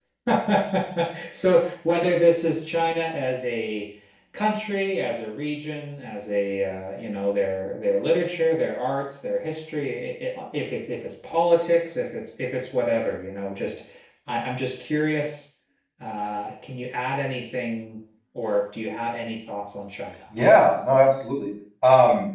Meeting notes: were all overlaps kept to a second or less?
Yes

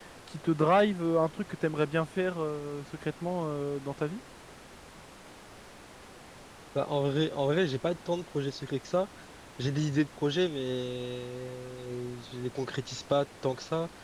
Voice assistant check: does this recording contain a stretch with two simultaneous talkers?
No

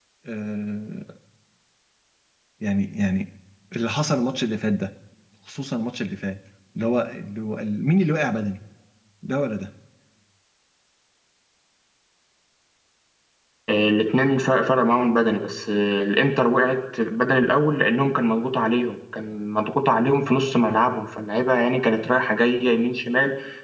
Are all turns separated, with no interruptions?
Yes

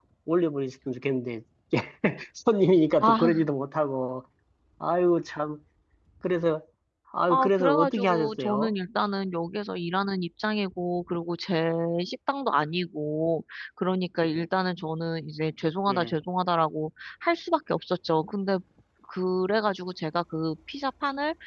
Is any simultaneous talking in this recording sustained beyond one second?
Yes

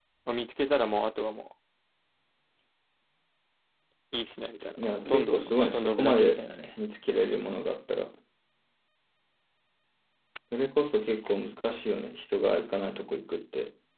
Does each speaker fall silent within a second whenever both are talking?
No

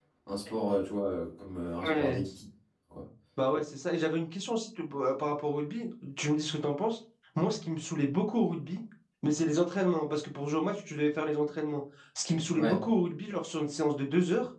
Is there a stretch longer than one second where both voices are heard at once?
No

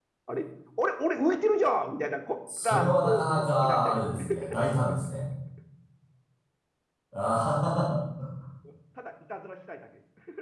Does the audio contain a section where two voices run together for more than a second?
Yes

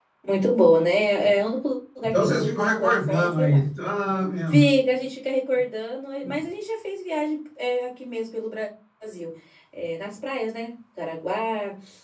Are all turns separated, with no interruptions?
No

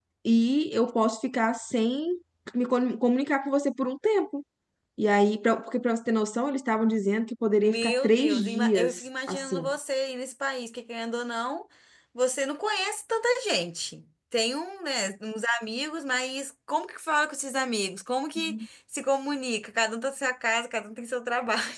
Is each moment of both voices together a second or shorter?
No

